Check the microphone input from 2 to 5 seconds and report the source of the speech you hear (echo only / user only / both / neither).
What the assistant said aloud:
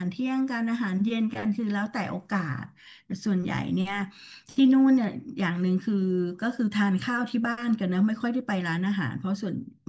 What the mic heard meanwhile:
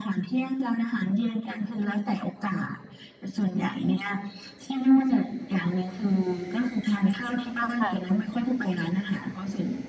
echo only